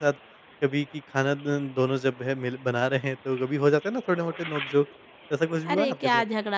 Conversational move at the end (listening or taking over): taking over